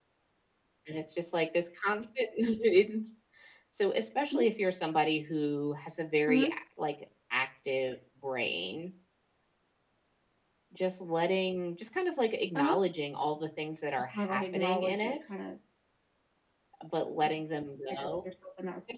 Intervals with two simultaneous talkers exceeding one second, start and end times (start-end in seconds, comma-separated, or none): 14.0-15.2